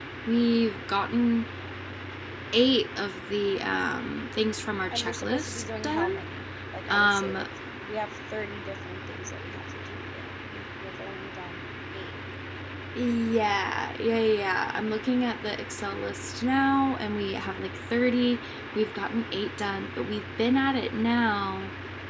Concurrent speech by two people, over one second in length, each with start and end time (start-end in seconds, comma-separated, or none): 4.9-6.2